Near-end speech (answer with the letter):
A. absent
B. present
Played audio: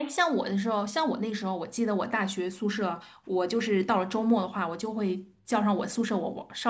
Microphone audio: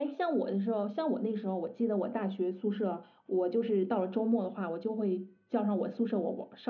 A